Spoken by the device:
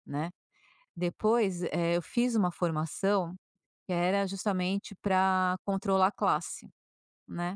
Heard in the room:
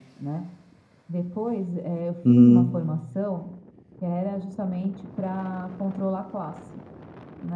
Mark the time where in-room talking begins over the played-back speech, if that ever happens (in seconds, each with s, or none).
2.2 s